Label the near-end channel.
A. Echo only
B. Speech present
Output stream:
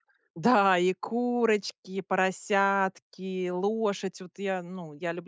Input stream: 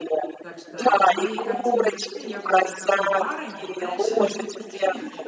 B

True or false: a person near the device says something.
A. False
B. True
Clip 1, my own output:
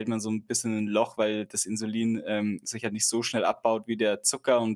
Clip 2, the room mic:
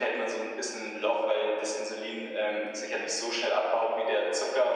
A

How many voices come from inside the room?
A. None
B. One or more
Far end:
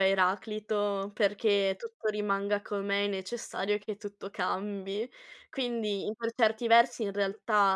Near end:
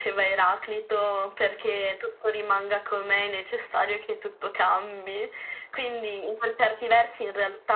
A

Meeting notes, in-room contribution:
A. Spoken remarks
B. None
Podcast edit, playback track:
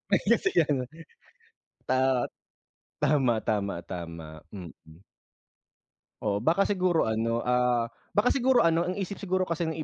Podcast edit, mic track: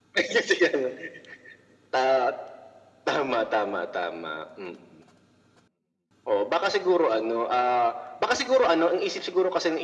B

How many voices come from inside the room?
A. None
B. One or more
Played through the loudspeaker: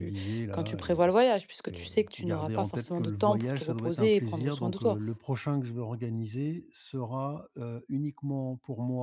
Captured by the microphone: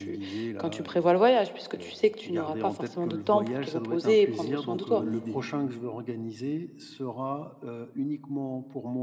B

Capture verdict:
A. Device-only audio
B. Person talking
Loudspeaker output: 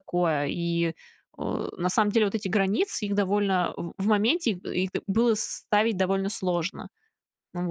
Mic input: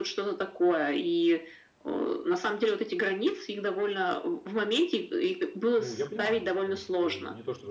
B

